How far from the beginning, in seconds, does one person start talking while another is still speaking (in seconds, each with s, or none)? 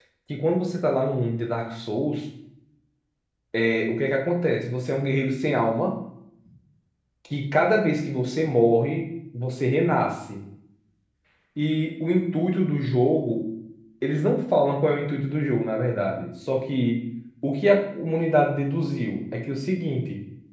none